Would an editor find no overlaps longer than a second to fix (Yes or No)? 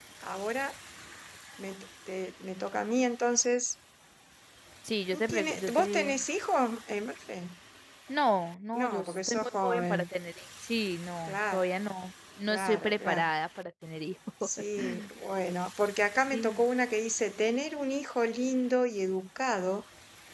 No